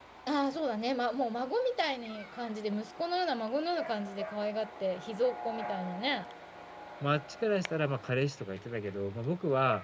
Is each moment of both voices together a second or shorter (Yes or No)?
Yes